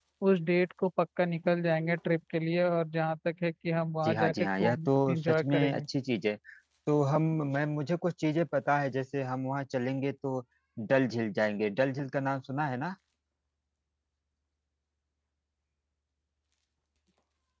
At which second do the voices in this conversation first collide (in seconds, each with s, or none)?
4.0 s